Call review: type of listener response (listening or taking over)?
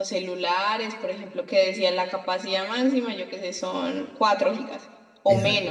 taking over